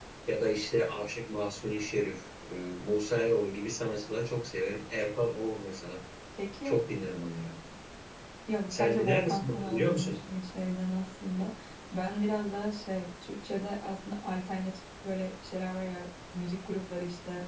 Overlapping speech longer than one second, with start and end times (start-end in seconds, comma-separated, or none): 8.7-10.2